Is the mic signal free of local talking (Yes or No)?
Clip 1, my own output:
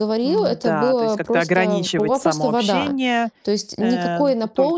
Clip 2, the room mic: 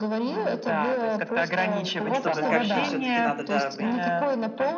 No